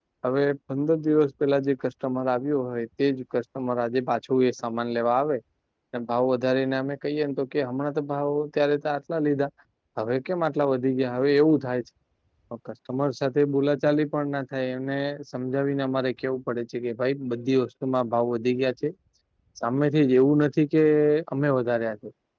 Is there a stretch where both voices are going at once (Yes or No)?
No